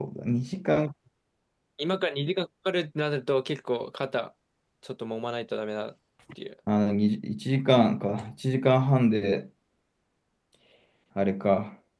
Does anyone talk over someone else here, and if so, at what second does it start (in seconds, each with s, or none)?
none